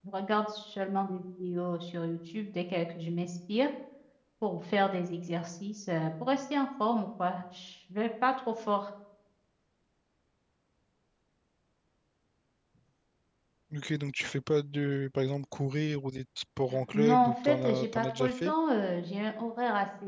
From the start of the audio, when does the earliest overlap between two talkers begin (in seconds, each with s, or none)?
16.7 s